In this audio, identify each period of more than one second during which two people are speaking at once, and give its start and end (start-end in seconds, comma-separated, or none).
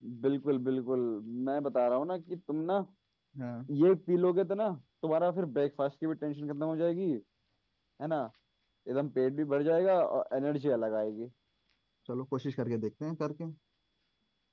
none